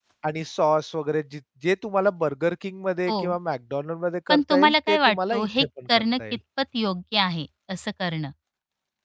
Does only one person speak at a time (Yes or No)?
No